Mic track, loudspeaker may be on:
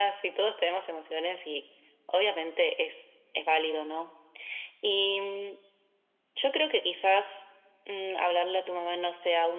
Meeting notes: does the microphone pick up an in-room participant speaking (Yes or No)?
No